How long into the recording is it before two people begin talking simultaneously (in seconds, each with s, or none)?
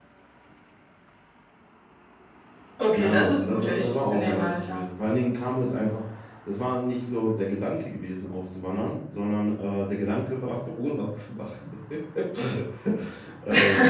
3.0 s